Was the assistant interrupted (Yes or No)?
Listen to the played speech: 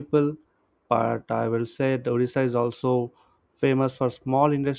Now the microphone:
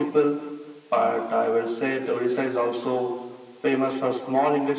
No